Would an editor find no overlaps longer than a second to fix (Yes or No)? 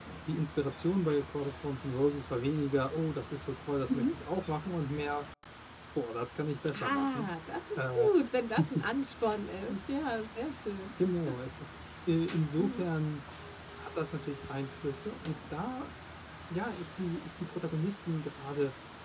Yes